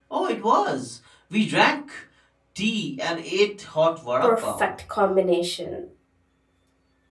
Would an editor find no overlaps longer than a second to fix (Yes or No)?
Yes